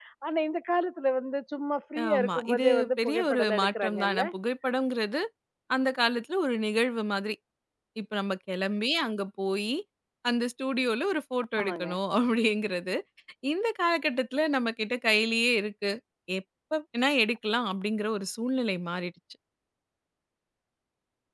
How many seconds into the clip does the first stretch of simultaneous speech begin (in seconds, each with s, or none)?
2.1 s